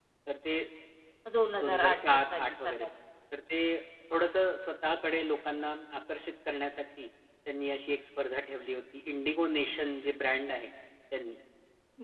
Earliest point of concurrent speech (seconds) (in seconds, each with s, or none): 1.6 s